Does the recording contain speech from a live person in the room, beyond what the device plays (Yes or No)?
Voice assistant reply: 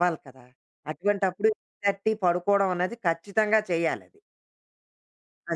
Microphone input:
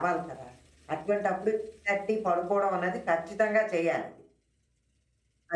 No